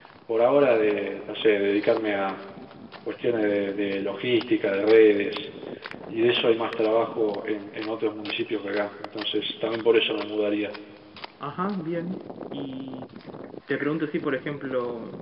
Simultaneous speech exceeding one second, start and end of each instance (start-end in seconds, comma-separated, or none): none